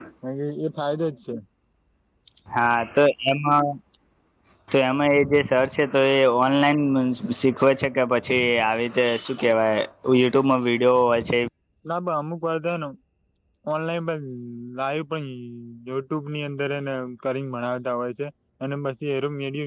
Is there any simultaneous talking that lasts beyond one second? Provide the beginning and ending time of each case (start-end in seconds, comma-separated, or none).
none